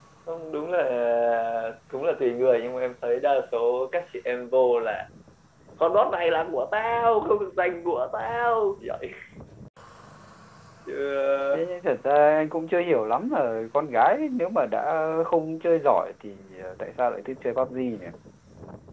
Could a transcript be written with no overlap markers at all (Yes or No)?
Yes